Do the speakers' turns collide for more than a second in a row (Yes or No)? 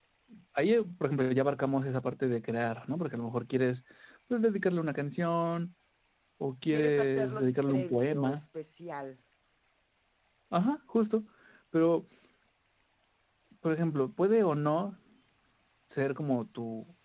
Yes